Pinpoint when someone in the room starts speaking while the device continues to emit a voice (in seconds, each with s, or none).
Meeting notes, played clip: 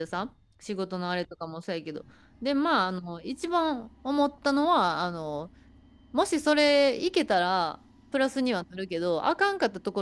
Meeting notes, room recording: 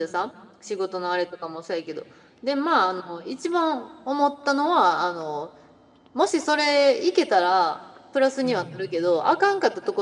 8.4 s